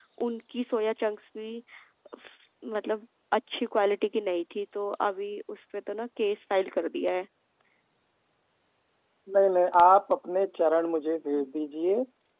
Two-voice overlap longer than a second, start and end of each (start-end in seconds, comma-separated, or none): none